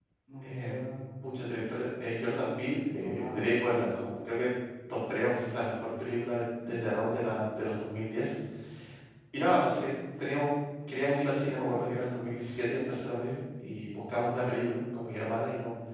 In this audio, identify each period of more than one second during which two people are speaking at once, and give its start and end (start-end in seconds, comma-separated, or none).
none